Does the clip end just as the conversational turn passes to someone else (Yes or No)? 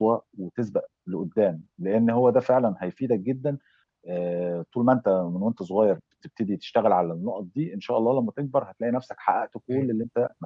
No